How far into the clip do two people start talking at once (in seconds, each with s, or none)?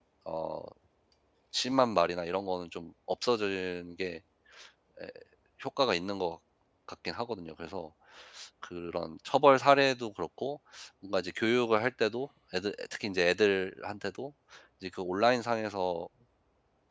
none